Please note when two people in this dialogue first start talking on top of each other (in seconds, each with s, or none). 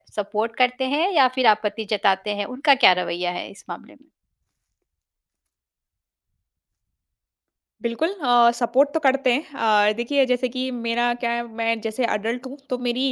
none